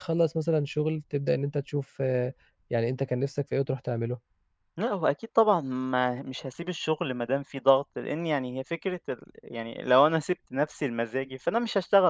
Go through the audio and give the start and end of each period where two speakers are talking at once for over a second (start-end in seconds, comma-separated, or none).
none